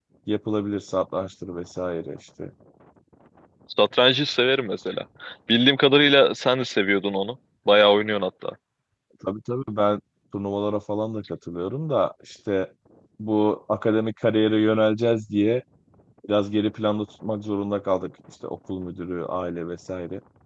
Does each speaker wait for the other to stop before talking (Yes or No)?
Yes